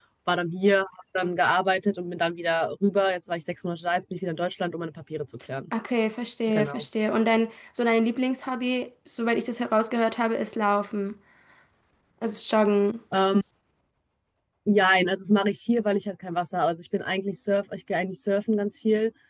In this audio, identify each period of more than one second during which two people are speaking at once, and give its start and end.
none

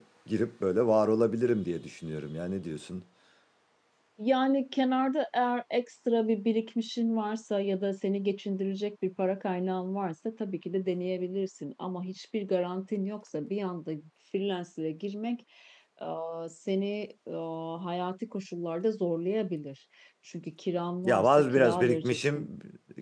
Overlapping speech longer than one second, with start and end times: 21.0-22.5

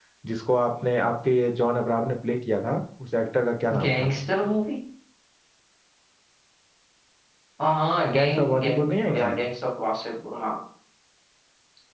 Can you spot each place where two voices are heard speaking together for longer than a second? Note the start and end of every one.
8.1-9.3

